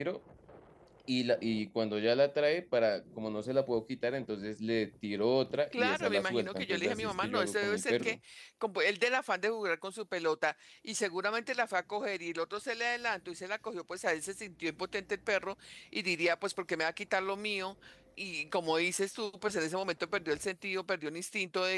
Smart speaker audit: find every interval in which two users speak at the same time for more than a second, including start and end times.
5.7-8.2

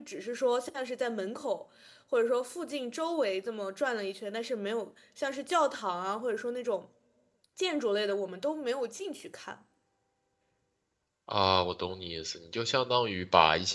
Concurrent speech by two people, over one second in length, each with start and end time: none

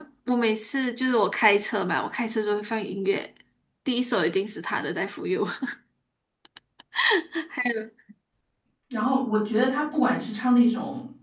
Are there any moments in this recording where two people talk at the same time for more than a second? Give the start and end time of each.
none

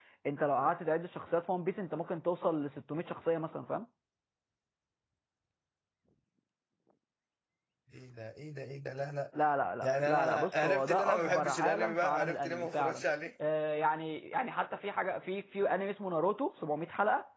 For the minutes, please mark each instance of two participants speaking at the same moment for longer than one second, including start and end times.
9.8-13.0

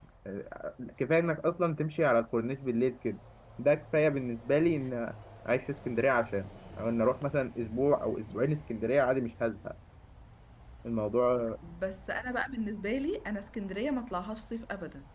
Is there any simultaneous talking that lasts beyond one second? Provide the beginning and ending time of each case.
none

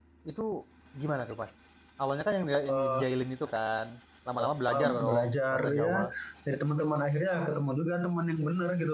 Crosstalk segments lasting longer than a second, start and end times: 4.5-6.0

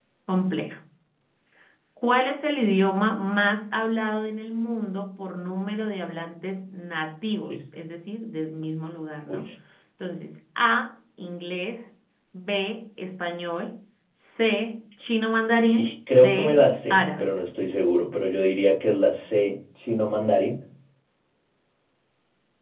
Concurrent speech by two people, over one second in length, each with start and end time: 15.8-17.3

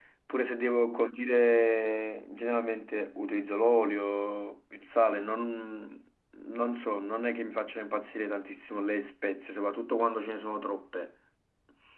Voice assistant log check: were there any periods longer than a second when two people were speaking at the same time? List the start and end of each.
none

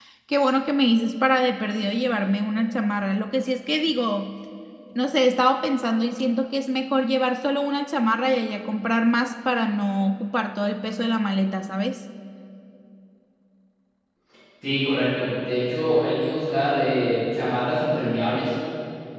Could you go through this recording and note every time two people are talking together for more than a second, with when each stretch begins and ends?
none

